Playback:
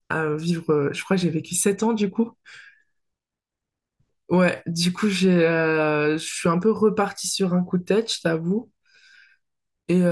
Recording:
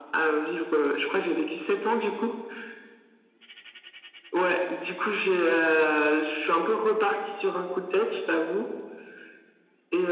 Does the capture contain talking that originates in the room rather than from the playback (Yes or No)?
No